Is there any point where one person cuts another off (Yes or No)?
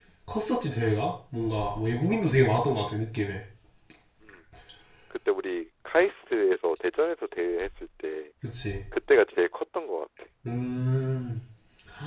No